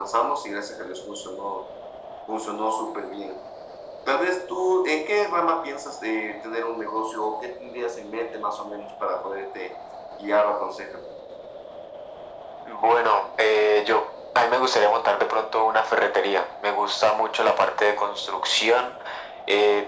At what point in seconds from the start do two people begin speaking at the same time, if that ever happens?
none

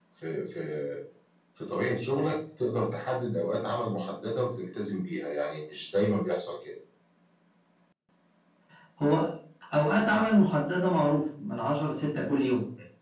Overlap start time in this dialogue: none

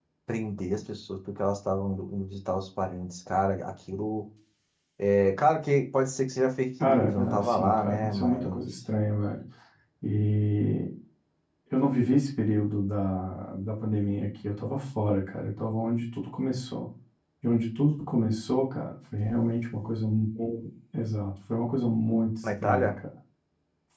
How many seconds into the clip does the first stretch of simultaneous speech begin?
6.8 s

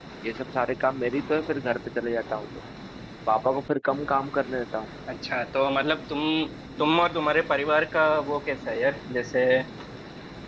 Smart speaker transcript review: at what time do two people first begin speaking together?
none

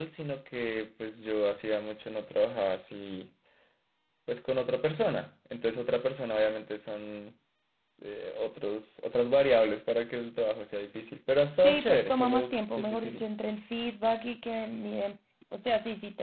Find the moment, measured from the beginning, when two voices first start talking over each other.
11.6 s

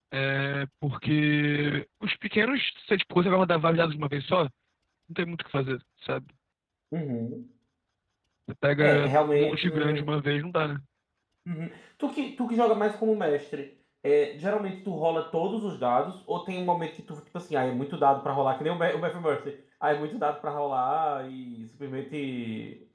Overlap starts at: 8.8 s

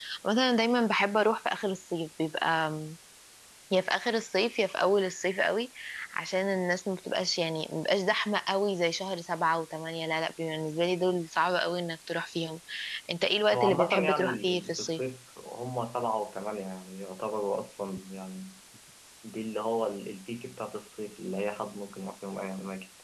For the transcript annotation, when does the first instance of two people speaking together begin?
13.5 s

